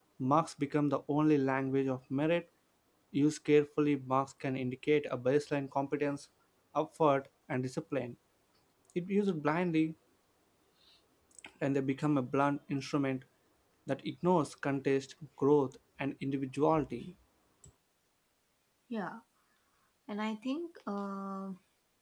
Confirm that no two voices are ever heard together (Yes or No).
Yes